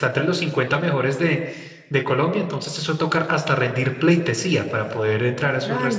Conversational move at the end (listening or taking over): taking over